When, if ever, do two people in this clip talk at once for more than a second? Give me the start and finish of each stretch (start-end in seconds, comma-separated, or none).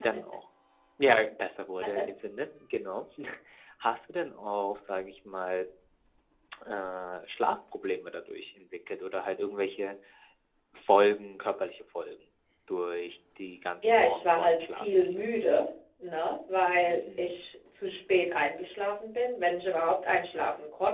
13.8-15.3